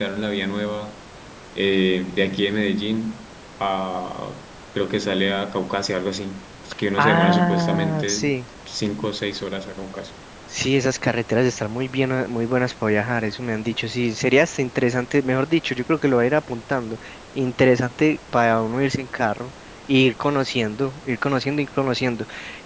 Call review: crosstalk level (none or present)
present